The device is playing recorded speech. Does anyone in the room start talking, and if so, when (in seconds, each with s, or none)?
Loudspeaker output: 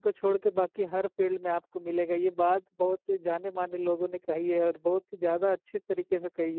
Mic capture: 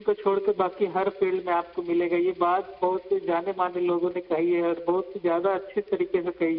none